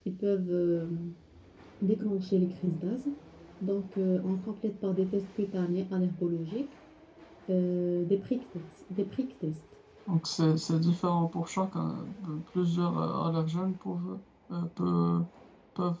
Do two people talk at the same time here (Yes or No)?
No